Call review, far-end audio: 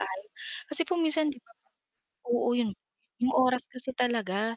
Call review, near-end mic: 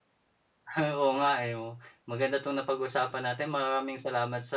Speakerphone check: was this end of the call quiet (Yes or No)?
No